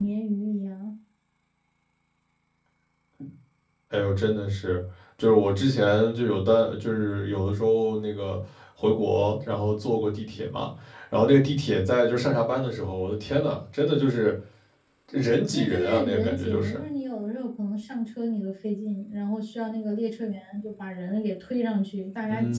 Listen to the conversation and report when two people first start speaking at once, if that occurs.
15.5 s

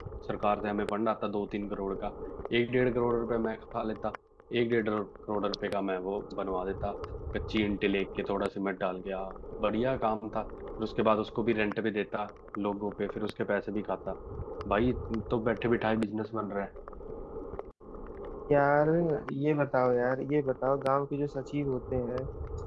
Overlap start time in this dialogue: none

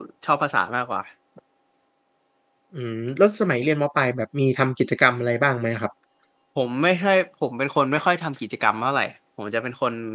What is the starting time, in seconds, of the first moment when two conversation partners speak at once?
none

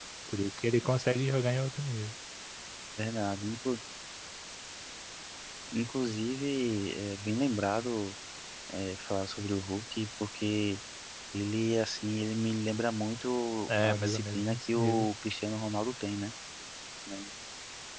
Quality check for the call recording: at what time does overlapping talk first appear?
13.7 s

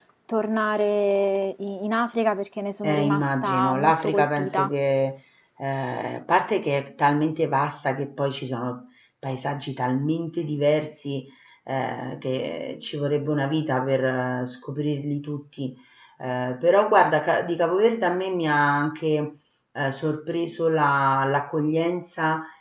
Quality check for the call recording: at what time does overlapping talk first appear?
2.8 s

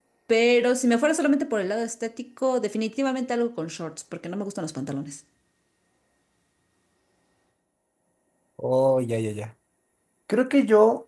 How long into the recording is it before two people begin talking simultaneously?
none

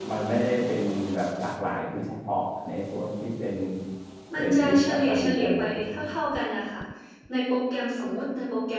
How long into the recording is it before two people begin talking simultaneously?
4.3 s

